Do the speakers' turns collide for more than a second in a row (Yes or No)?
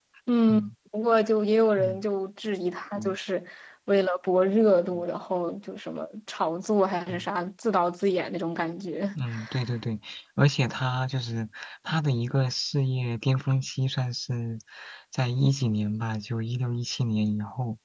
No